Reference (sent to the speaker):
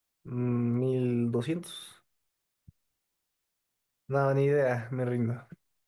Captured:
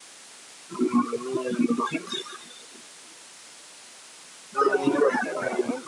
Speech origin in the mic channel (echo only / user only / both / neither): both